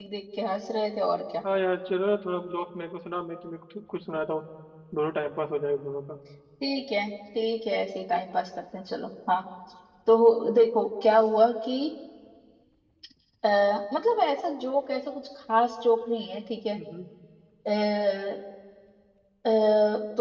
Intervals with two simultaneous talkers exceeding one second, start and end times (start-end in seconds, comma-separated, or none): none